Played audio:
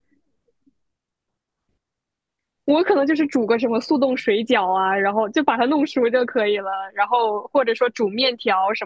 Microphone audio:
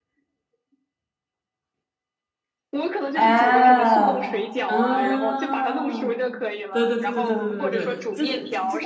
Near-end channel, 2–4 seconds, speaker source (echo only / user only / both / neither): both